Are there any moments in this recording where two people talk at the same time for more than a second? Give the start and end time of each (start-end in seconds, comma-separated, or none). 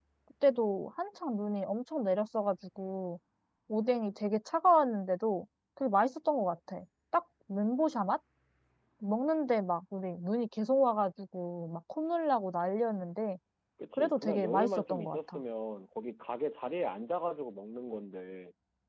13.9-15.4